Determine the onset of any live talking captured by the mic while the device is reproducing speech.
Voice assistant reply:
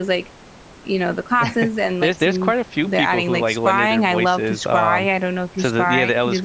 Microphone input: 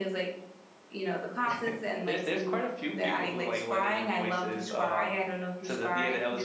none

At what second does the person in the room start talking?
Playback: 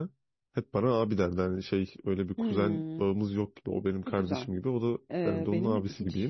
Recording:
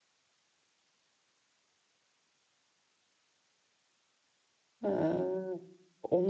4.8 s

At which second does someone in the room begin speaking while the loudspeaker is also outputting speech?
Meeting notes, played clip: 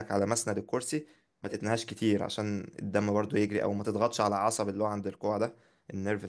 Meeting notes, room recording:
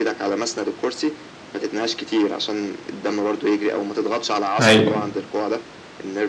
4.6 s

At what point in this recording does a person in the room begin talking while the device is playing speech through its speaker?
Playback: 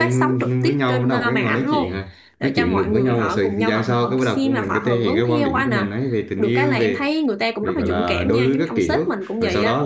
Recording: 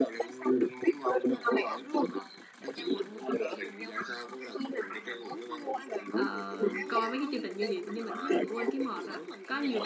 6.1 s

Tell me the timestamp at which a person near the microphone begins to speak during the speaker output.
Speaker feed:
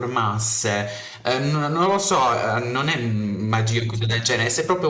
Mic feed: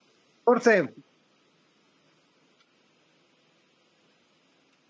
0.4 s

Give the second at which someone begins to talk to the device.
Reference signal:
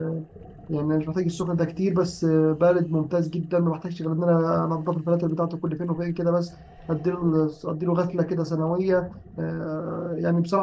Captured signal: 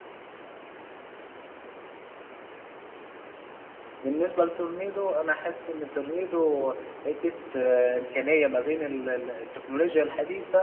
4.0 s

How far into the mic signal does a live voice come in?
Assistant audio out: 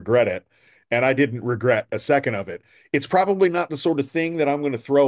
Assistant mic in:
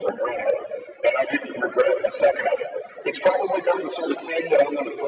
none

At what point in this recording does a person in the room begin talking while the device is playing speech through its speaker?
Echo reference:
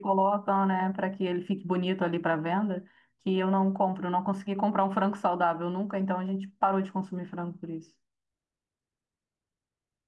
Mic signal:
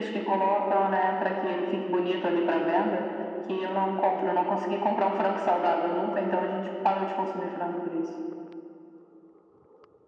none

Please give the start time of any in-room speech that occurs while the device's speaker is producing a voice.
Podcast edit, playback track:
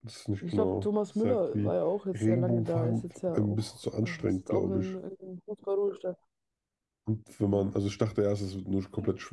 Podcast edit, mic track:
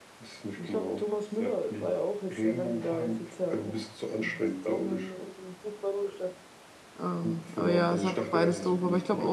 7.0 s

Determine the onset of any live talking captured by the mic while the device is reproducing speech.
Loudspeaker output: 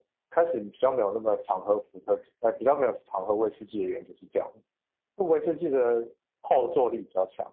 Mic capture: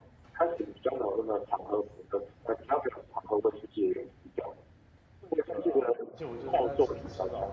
5.5 s

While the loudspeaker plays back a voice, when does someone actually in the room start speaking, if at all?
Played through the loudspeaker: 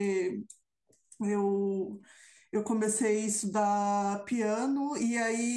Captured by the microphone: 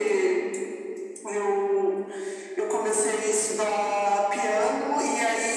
none

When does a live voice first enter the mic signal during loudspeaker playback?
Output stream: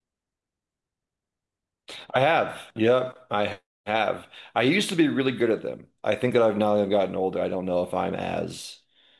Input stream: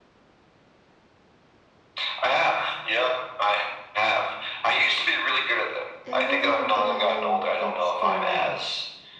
6.1 s

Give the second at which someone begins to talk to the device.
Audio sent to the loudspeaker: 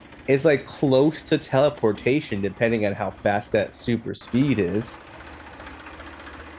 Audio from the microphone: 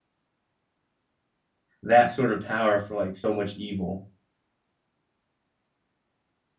1.8 s

